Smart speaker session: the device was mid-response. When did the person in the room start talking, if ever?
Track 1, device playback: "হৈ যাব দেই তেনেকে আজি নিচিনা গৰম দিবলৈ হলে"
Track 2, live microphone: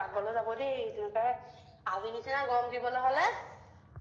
none

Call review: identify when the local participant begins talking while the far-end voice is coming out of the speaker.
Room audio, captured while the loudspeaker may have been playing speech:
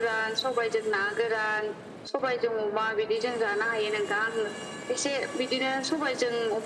none

